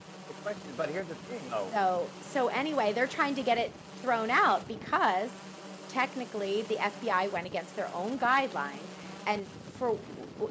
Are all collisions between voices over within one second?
Yes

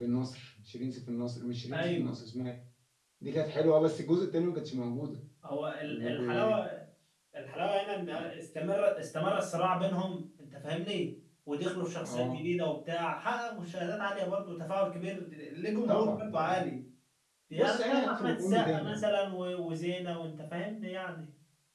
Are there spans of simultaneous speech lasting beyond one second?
Yes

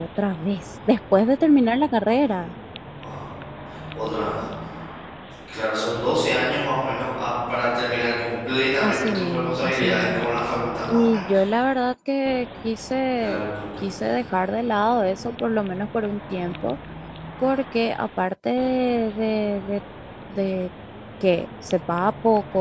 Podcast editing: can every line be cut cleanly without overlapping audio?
No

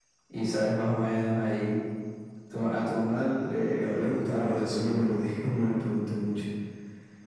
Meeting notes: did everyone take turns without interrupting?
No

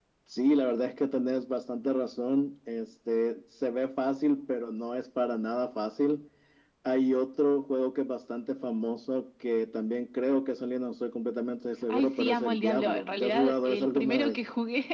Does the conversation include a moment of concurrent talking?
Yes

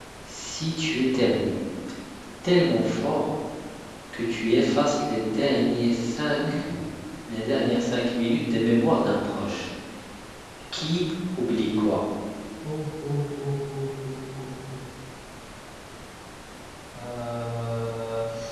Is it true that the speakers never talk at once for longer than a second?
Yes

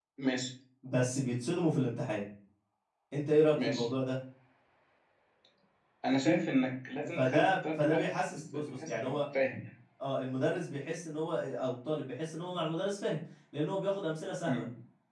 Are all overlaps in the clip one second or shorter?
No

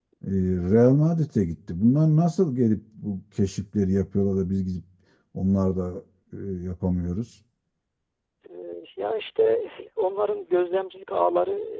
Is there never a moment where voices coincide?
Yes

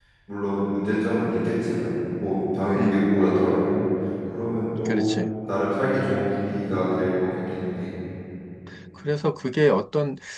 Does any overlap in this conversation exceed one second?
No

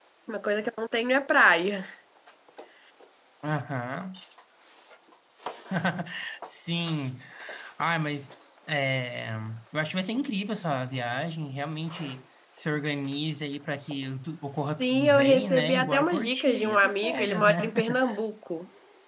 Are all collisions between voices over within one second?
No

